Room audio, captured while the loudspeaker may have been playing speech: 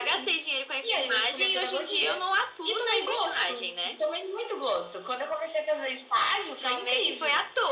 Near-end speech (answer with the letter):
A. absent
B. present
A